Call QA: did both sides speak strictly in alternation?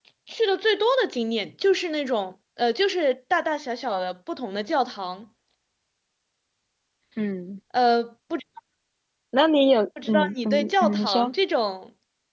No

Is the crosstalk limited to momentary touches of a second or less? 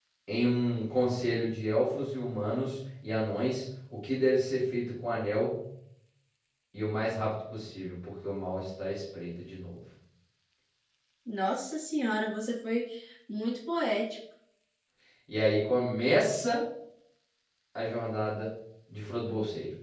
Yes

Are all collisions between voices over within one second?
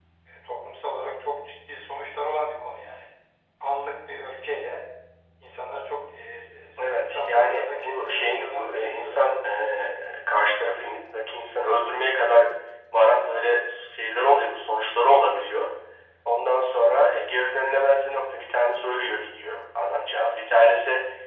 No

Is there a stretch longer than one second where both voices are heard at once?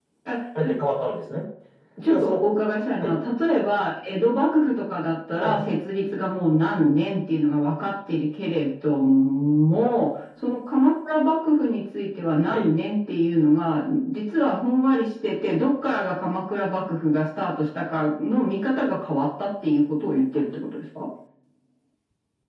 No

